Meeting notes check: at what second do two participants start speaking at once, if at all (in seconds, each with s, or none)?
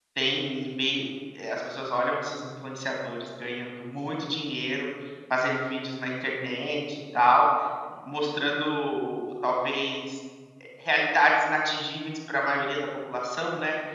none